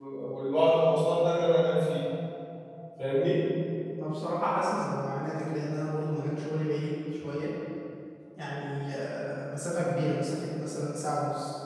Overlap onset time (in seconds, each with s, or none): none